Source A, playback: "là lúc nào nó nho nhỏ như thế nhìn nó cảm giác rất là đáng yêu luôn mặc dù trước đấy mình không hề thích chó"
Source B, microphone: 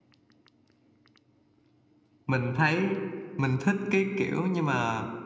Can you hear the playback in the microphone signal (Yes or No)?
No